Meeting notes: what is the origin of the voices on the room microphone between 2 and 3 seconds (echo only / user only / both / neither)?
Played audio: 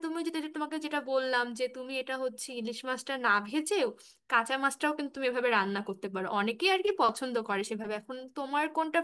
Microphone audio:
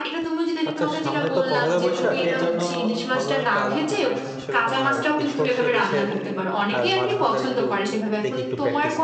both